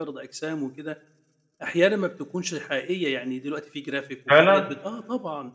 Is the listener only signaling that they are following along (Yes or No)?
Yes